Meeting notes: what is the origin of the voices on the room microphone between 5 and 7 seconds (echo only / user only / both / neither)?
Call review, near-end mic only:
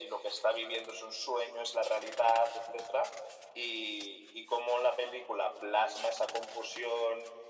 echo only